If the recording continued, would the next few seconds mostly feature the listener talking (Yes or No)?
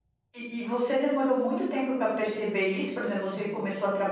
No